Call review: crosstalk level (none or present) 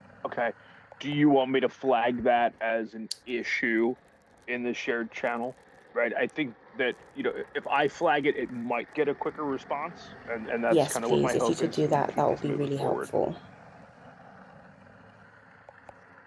present